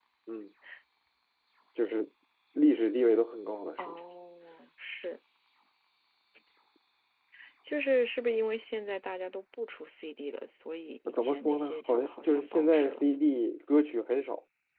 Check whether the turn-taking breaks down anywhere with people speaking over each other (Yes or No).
Yes